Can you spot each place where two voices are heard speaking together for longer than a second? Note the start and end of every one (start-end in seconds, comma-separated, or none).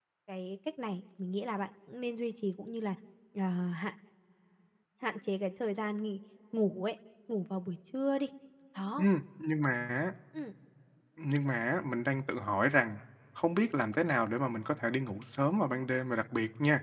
none